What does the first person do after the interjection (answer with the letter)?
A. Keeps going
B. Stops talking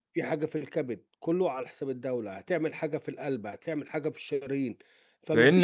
B